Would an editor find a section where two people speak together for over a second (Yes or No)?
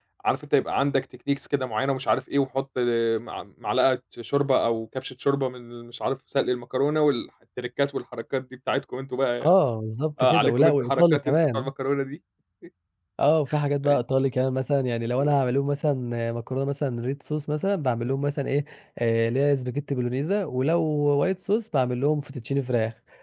Yes